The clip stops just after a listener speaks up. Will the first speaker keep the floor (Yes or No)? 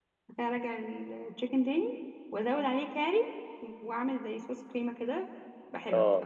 No